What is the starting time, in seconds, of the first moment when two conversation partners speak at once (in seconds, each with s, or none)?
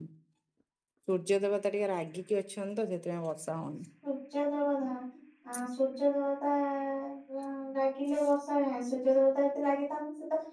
none